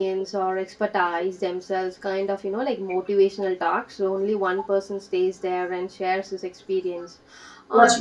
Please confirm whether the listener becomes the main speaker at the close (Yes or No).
No